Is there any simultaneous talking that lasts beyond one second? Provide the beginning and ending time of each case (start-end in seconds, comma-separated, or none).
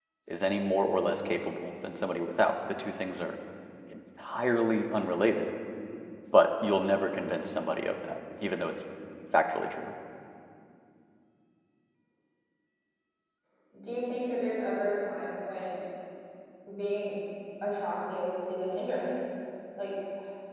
none